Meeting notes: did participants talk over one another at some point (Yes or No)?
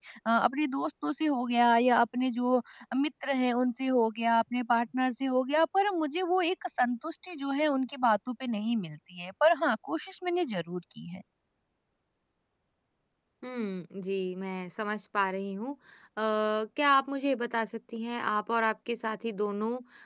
No